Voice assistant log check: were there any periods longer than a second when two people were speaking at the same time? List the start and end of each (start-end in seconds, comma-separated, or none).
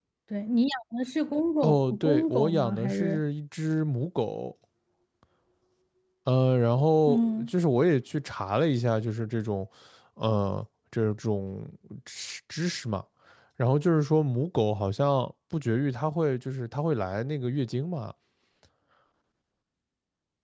1.6-3.2